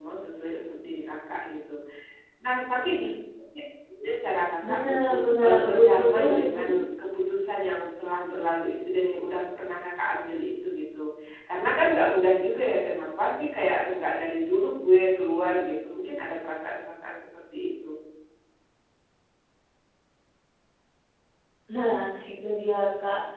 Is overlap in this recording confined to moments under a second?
No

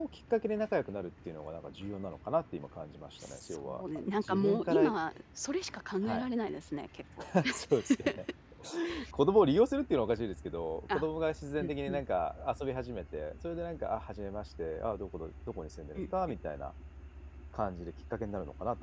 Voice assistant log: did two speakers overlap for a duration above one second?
Yes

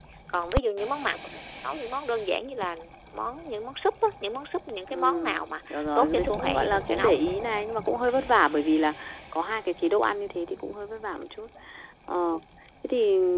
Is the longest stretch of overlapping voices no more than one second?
No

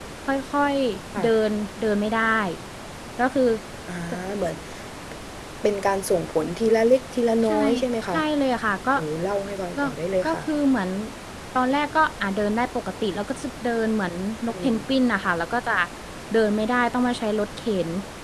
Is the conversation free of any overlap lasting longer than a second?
Yes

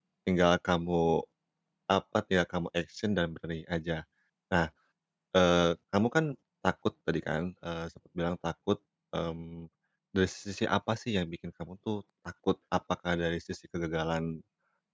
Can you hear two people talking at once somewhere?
No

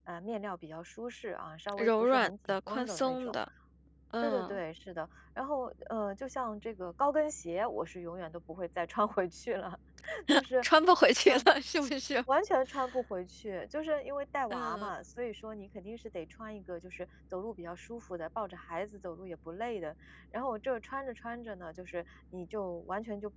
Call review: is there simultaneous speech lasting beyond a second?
Yes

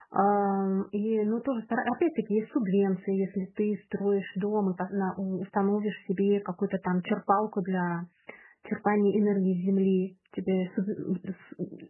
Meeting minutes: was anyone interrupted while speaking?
No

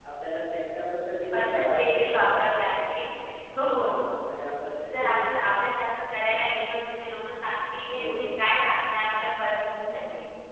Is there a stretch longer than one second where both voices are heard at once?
Yes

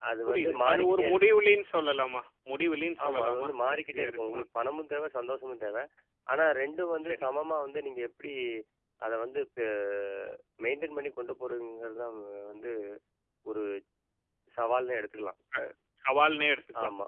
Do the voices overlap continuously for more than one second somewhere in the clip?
Yes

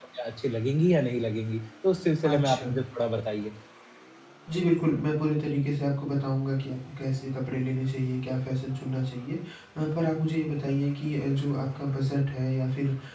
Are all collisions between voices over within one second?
Yes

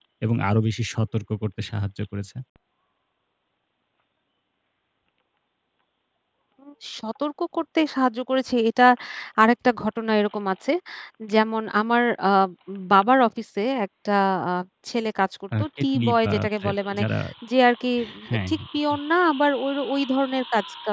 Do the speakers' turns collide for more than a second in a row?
Yes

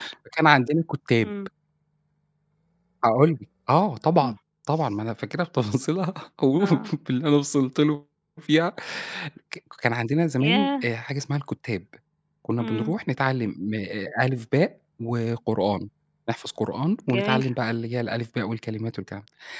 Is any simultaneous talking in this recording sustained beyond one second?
No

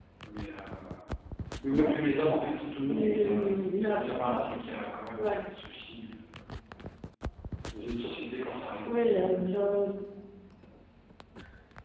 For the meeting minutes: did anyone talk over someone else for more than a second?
Yes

